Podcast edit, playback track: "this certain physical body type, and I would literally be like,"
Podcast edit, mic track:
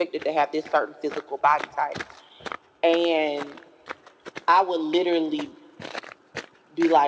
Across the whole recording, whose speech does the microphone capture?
echo only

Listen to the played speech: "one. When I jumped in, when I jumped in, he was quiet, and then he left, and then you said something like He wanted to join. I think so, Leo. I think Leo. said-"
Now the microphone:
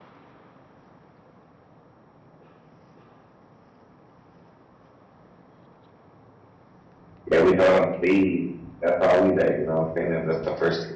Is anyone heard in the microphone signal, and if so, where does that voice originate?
user only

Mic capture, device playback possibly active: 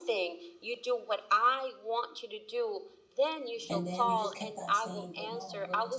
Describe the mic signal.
both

